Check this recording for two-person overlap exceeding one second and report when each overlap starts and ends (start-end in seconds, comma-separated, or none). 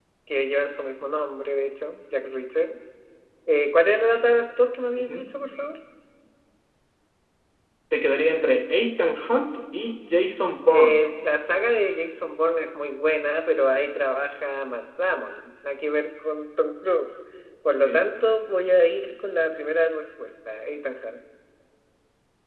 none